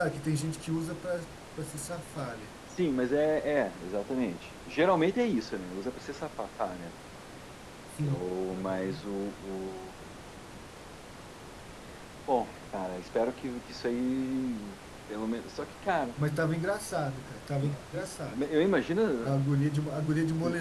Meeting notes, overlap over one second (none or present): none